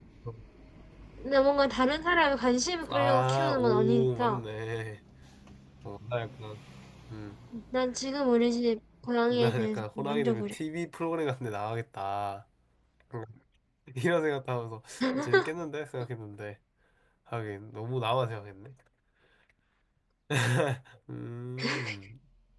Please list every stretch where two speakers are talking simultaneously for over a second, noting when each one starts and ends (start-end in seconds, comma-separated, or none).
2.9-4.4, 9.3-10.5